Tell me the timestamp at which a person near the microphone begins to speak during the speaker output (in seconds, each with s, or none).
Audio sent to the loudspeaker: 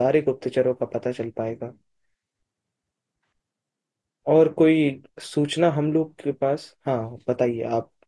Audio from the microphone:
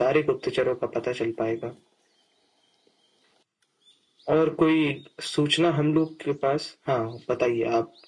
none